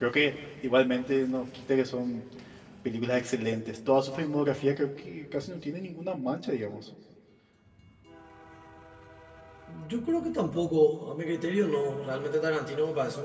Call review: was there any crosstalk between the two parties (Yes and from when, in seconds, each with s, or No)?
No